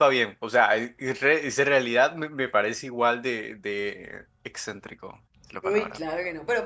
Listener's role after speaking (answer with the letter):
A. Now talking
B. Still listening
A